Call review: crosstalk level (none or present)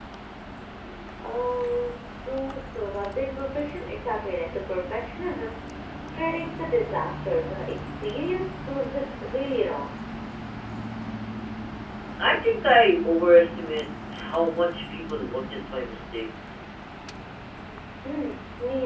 none